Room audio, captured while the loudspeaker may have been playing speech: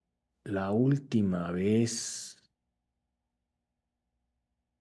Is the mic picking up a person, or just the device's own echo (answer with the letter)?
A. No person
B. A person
B